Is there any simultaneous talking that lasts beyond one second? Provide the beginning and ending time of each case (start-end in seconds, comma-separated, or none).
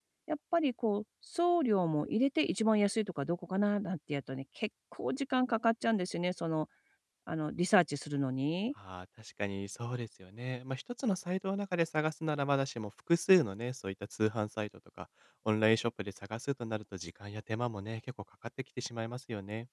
none